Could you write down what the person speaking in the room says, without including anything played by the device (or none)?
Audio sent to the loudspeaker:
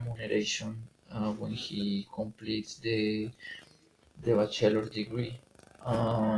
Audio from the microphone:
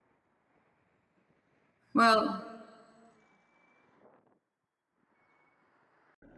Well,